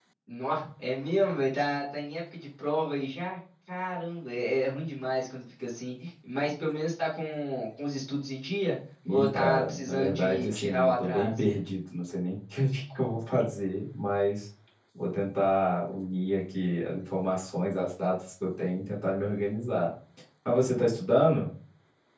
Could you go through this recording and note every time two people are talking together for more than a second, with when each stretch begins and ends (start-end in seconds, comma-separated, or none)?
9.1-11.4